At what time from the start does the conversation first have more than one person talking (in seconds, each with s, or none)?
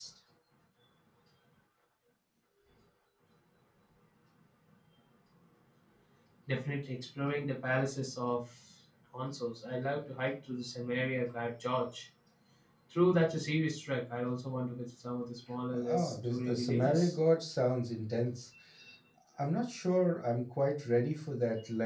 15.8 s